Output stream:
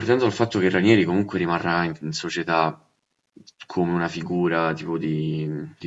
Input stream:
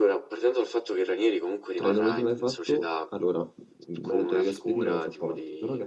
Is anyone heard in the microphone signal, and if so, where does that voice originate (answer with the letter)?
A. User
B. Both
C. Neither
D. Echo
B